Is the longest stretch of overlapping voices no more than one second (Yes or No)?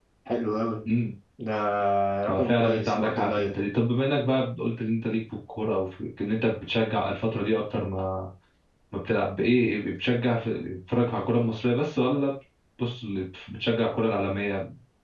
No